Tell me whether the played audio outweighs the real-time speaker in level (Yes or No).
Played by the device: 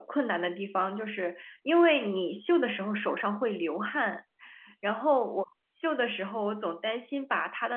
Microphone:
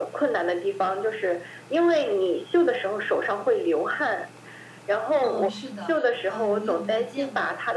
Yes